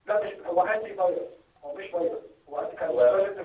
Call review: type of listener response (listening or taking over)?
listening